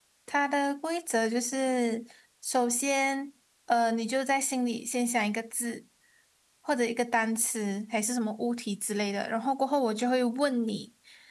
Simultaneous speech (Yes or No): No